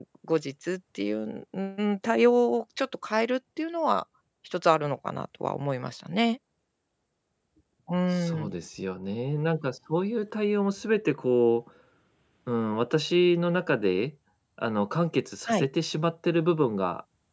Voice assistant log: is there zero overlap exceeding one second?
Yes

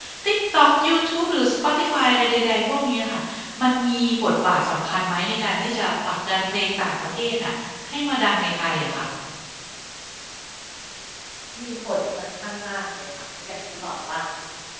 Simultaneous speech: No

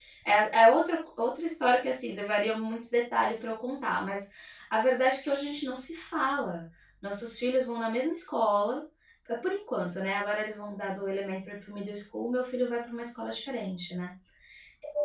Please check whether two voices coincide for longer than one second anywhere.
No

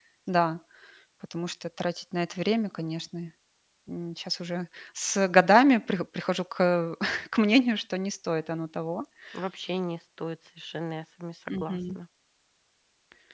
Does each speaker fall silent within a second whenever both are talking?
Yes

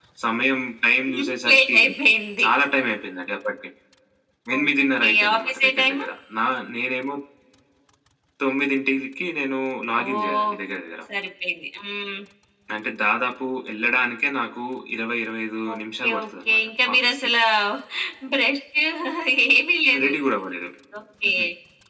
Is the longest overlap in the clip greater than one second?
Yes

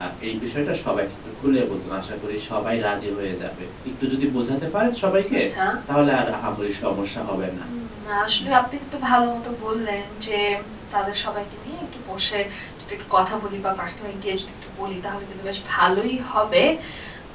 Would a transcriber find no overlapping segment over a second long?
Yes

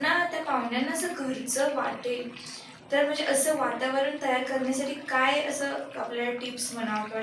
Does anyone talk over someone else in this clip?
No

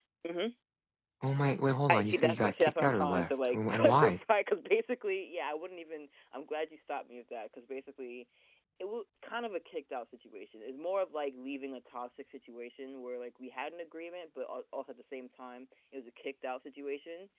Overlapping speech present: Yes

